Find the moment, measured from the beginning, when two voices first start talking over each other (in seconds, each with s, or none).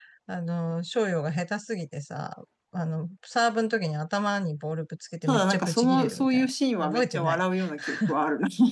5.3 s